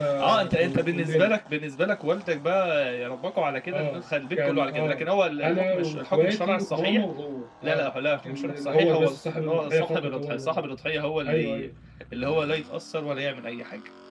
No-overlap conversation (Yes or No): No